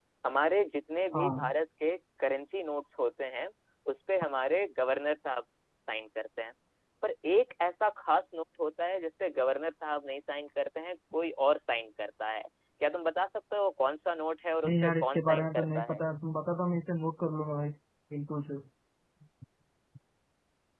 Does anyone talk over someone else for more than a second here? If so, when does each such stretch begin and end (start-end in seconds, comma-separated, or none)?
14.7-16.0